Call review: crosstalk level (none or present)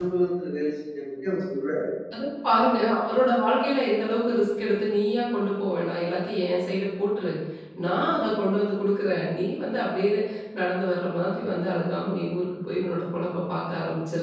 none